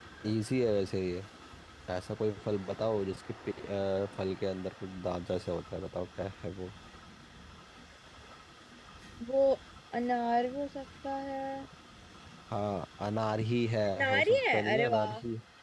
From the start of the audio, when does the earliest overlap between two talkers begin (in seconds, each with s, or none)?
13.9 s